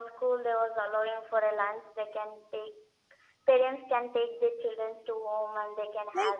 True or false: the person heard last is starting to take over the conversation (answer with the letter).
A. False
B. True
B